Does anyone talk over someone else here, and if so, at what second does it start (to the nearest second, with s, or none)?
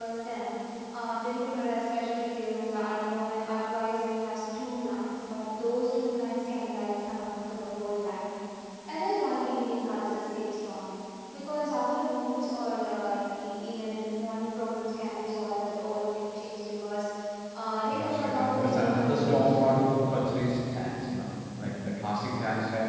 18 s